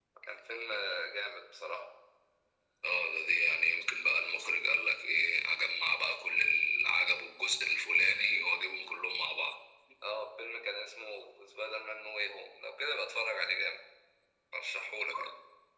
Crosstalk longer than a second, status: none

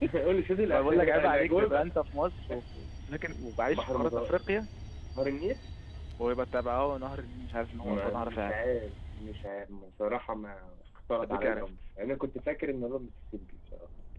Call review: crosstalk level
present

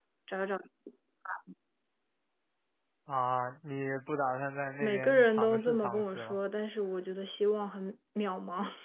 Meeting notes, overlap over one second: present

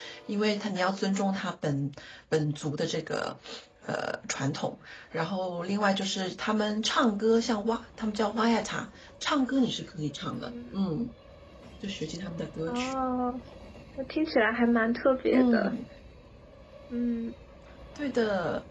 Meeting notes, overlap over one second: none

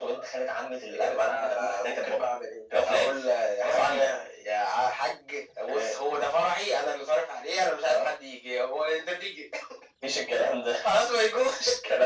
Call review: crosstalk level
present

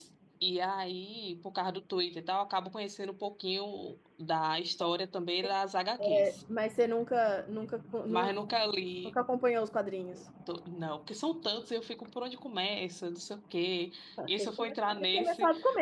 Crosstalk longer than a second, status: present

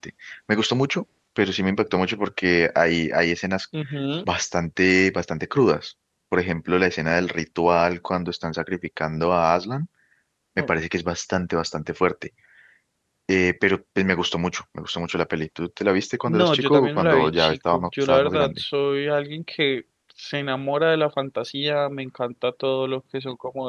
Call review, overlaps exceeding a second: present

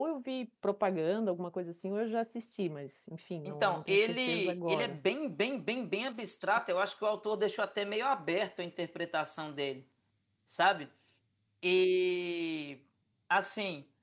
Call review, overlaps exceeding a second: present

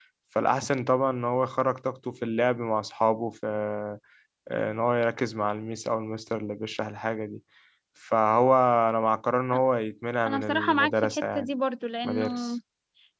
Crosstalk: present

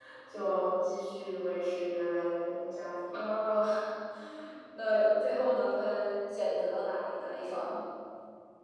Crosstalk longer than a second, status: none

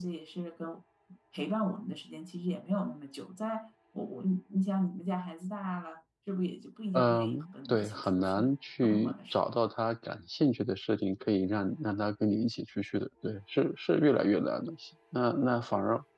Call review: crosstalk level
present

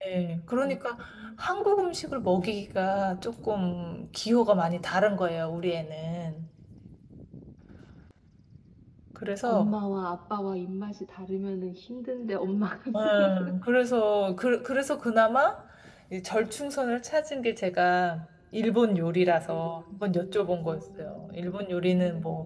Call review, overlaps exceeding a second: present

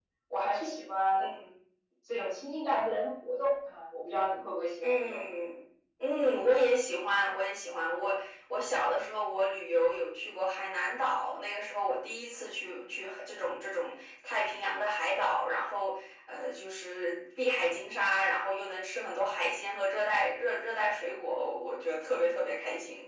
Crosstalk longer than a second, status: none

